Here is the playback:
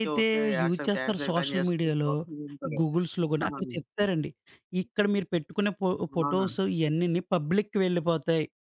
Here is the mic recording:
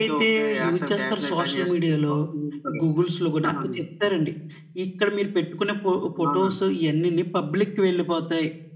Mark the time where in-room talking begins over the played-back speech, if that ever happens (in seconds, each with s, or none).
none